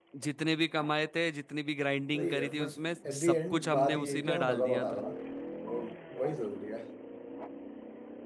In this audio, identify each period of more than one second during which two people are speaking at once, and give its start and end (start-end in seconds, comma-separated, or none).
3.1-5.0